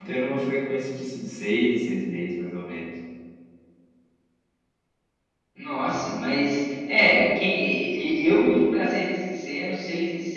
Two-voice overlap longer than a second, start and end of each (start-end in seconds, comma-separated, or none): none